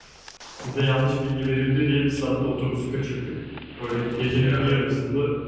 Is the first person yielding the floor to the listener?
No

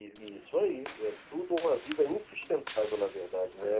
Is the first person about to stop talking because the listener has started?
Yes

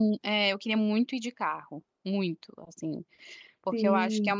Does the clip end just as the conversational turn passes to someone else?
No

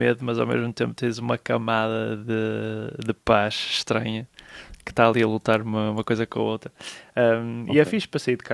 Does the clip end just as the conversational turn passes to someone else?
No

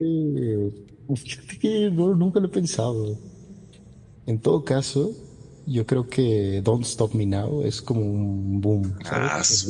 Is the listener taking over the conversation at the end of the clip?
Yes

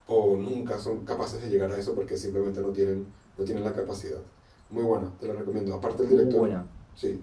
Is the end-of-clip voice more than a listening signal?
No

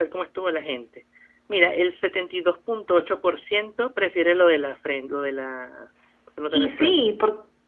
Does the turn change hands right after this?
Yes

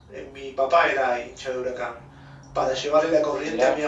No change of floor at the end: Yes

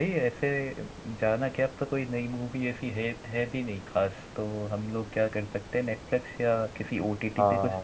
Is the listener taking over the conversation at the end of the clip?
Yes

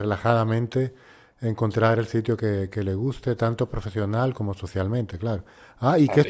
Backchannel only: No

